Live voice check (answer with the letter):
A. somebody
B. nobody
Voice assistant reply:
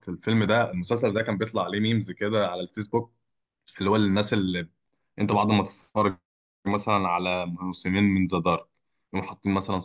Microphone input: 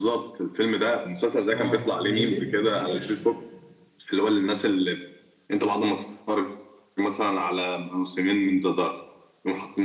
A